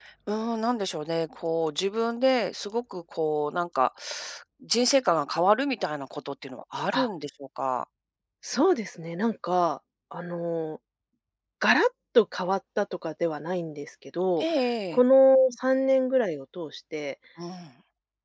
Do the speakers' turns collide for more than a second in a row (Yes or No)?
No